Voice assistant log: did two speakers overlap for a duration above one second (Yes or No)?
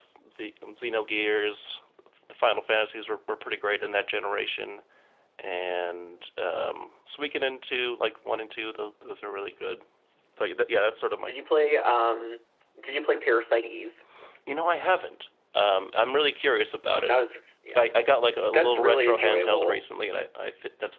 Yes